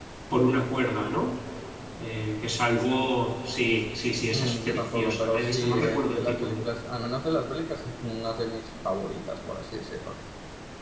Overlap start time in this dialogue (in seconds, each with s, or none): 4.3 s